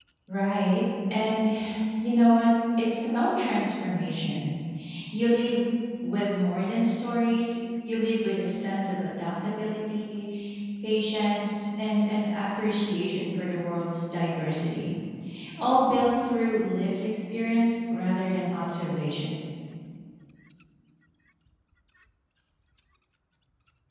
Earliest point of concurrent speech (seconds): none

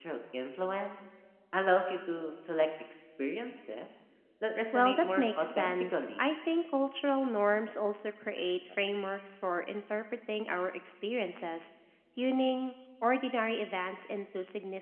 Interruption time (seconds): 5 s

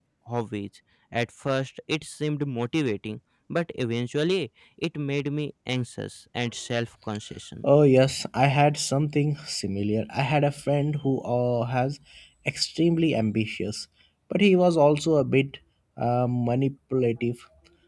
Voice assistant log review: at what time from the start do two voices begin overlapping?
none

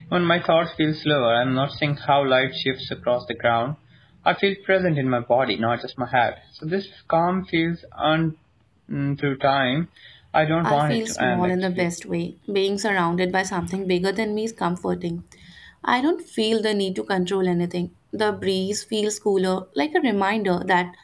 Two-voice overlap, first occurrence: 11 s

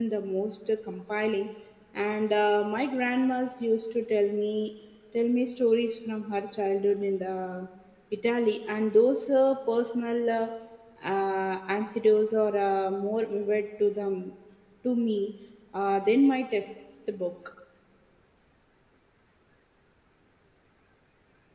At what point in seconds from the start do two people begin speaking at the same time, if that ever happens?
none

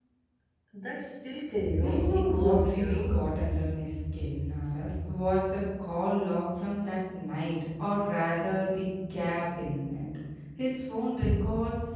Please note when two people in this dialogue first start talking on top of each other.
2 s

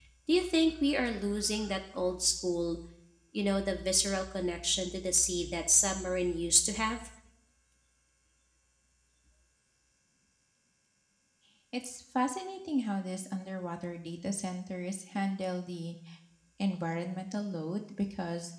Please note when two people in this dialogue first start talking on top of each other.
none

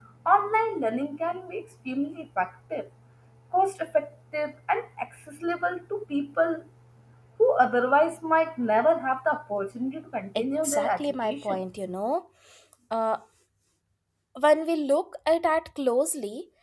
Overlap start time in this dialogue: 10 s

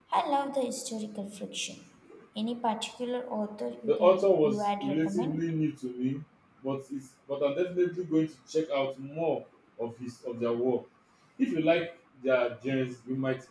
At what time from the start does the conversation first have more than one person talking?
4 s

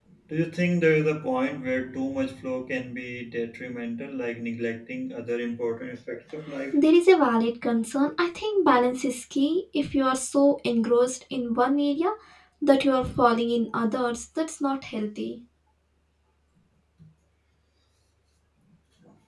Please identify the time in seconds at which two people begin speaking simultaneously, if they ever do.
none

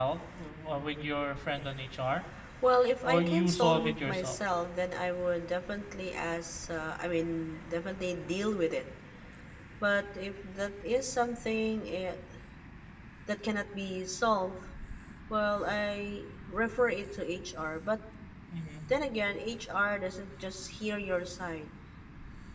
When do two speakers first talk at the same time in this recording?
3 s

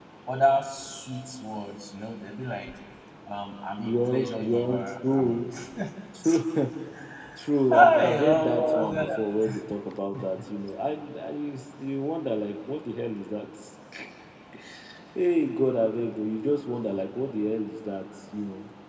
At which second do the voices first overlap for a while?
4 s

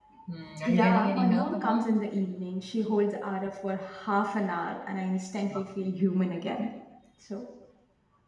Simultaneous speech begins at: 1 s

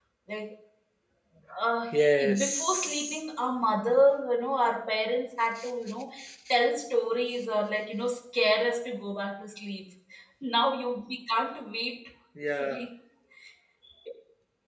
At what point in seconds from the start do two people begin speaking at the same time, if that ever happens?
2 s

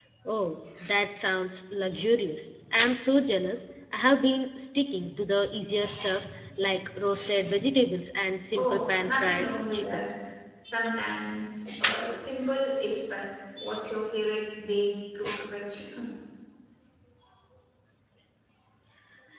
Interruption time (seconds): 9 s

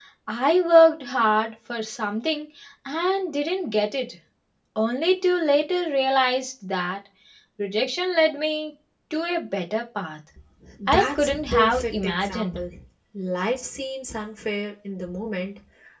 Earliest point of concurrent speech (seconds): 11 s

